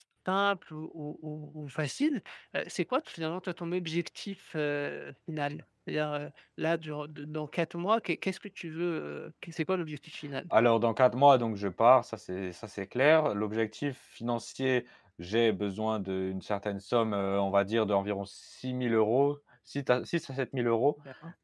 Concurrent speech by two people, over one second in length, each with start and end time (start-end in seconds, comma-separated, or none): none